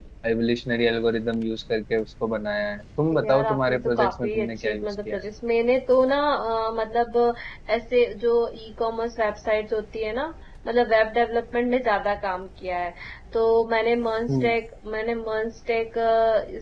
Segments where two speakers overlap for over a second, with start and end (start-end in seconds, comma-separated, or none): 3.1-5.2